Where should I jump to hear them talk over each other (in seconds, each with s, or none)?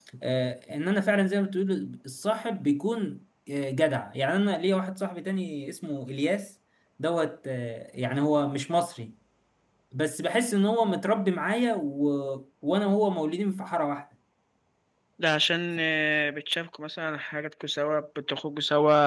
none